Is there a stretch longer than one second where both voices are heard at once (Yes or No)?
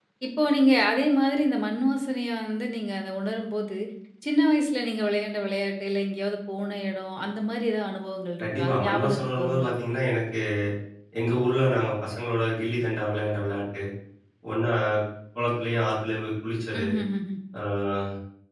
Yes